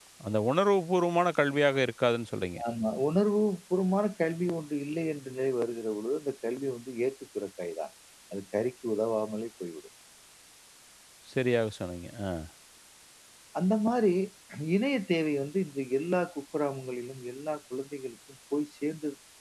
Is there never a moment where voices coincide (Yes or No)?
Yes